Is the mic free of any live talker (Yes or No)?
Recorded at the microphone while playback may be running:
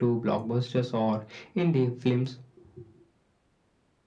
Yes